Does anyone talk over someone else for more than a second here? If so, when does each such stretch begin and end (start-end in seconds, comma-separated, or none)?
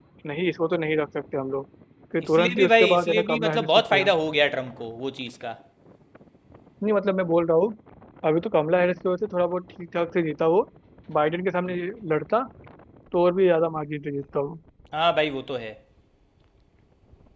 2.4-4.1